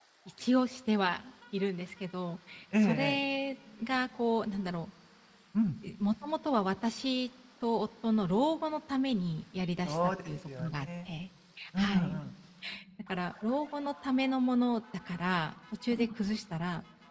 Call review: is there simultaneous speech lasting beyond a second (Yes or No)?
Yes